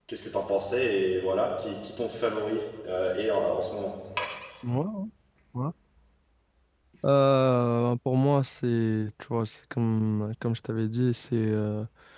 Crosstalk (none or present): none